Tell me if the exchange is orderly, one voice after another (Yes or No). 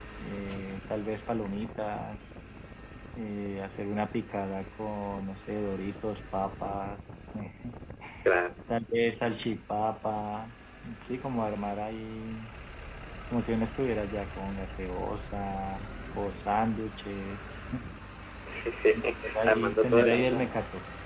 No